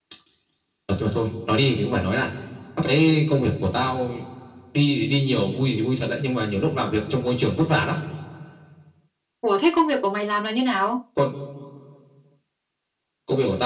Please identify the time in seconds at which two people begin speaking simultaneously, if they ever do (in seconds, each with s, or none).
none